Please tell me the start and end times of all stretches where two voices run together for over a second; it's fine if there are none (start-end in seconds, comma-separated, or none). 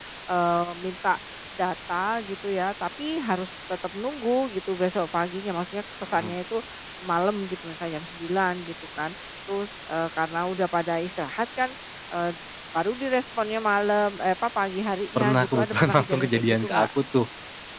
15.2-16.9